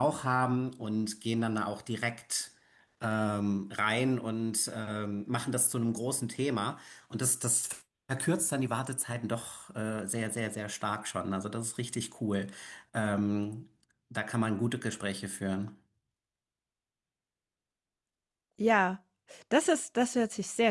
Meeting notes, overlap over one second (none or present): none